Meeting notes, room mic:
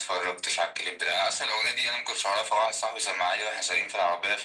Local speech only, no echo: none

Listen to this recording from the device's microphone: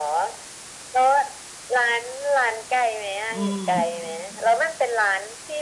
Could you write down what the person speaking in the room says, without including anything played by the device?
อืม

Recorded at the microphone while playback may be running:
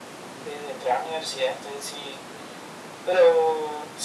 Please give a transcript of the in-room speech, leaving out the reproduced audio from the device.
none

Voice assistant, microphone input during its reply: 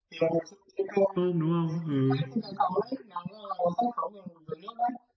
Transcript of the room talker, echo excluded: tôm đúng không ừ

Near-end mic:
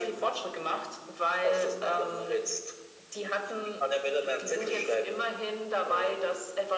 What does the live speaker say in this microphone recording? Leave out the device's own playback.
none

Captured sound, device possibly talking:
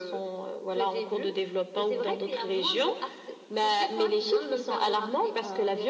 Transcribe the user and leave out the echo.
none

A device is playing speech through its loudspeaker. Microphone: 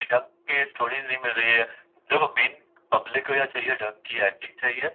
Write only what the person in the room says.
none

